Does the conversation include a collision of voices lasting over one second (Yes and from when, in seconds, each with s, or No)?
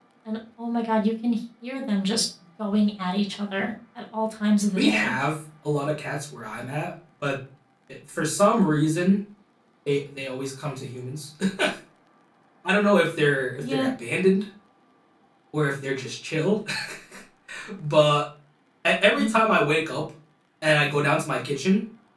No